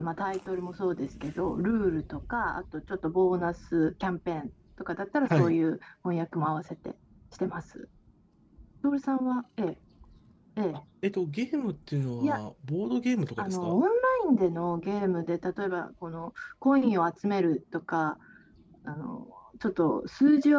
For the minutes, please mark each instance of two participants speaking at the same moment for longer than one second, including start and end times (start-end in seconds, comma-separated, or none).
none